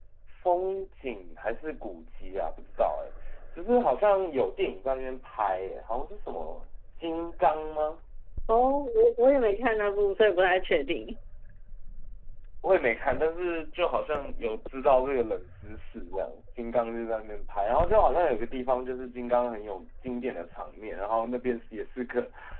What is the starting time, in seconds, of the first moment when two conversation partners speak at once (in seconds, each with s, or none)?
none